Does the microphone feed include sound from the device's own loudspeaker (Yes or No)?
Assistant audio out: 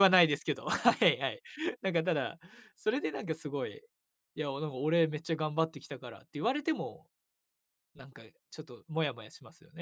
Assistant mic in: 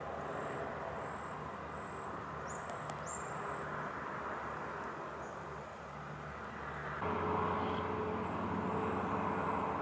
No